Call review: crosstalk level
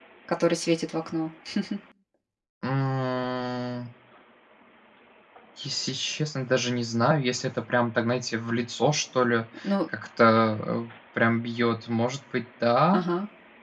none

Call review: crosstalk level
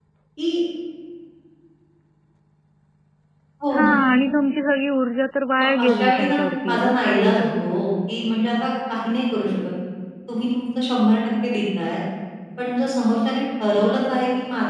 present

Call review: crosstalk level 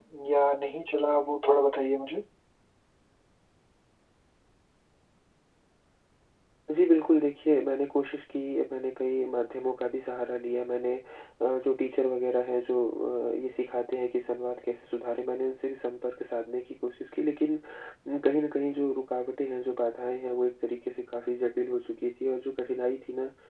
none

